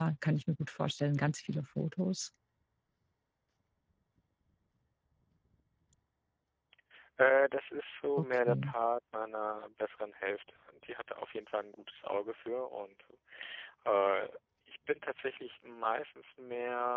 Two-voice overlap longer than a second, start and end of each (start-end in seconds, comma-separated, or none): none